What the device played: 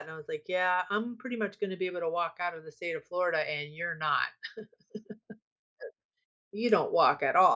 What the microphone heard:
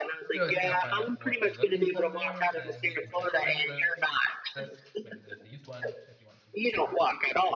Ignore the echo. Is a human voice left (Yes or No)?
Yes